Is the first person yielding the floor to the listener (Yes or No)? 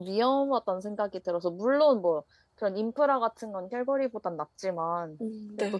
No